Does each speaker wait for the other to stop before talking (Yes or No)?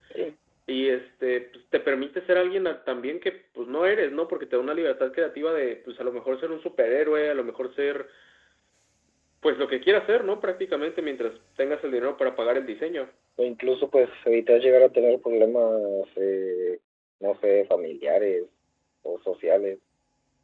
Yes